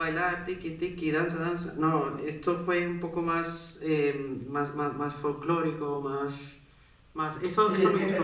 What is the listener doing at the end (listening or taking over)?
taking over